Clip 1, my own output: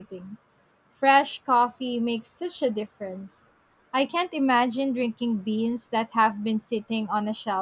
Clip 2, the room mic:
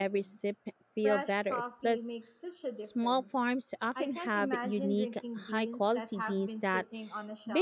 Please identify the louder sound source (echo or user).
user